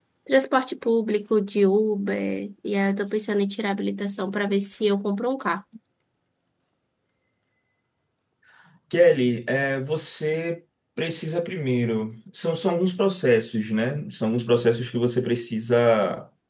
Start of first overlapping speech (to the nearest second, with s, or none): none